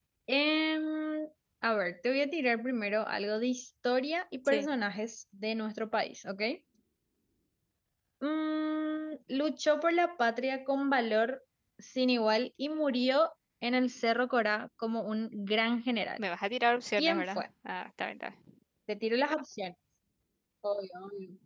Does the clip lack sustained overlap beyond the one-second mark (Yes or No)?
Yes